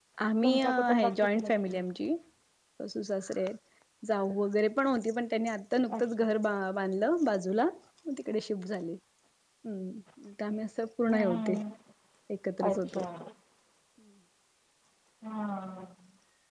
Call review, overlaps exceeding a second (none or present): present